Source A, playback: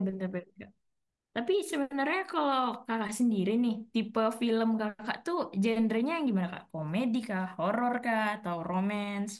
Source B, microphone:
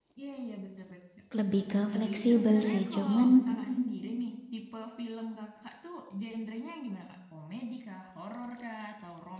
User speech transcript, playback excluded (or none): Lebih ke fleksibel sih, cuman